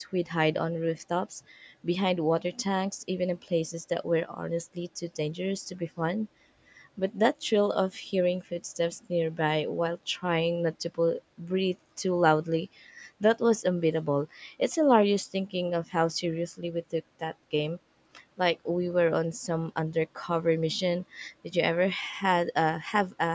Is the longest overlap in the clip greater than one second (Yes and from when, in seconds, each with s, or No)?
No